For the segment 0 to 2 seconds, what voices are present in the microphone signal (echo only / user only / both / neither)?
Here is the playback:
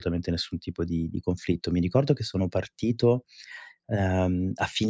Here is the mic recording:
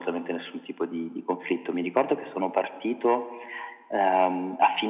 echo only